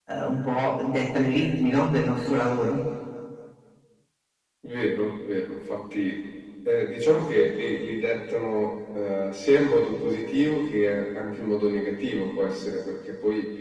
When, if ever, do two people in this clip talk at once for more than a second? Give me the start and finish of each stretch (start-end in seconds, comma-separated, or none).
none